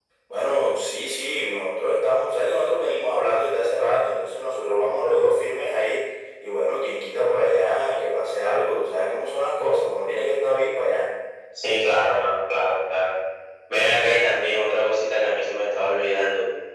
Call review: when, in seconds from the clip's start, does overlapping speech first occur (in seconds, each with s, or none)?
none